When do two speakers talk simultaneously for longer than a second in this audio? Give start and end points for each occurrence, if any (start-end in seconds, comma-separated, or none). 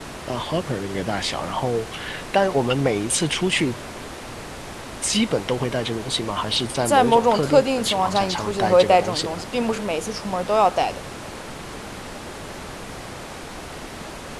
6.8-9.4